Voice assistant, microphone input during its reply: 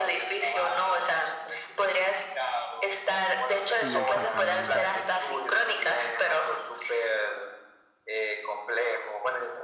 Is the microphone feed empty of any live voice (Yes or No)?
No